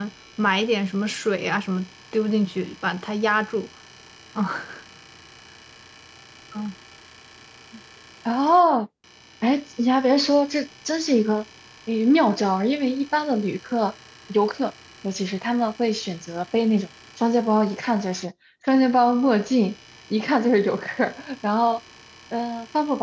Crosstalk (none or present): none